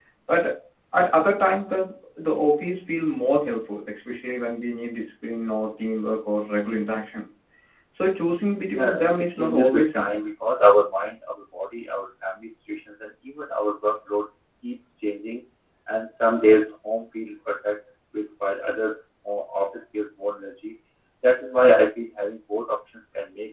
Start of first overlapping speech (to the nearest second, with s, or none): 9 s